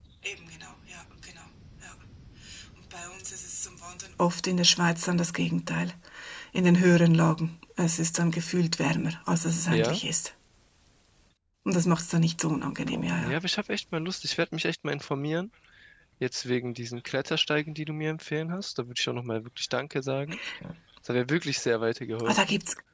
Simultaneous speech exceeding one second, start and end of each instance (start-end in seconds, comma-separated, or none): none